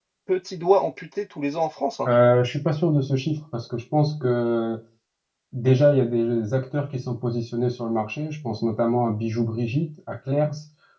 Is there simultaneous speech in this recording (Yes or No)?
No